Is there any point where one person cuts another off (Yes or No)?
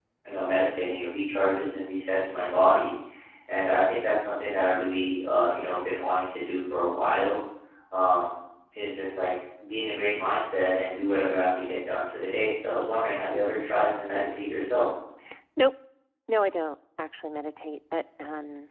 No